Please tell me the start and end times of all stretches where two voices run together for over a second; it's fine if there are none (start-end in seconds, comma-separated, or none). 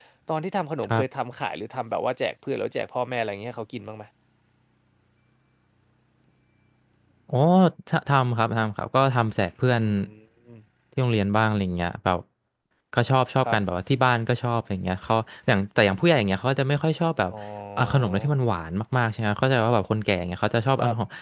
none